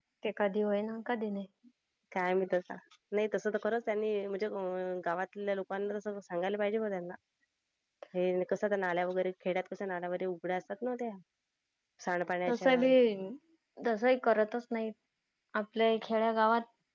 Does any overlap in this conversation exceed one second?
No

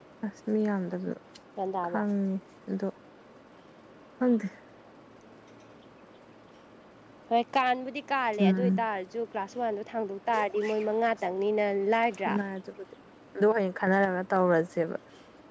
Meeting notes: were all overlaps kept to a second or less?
Yes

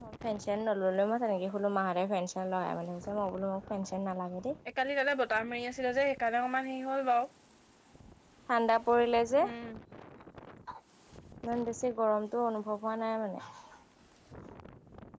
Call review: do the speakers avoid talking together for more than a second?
Yes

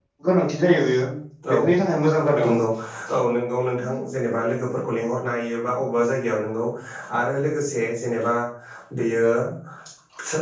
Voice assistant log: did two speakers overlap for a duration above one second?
No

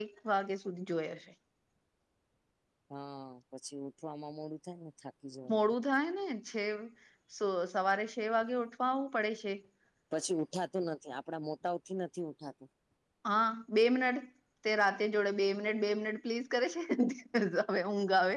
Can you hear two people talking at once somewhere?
No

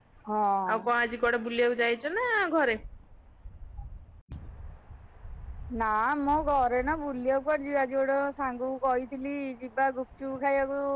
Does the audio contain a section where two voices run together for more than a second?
No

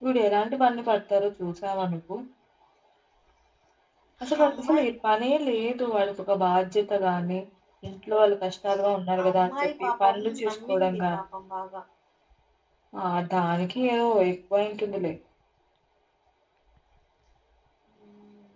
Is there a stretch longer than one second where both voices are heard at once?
Yes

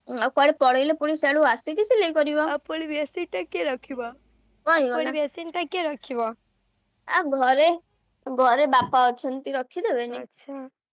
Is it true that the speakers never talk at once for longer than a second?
Yes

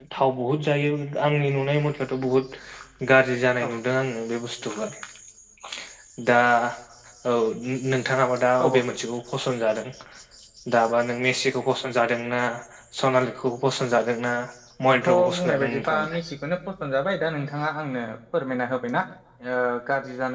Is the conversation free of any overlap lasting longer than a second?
No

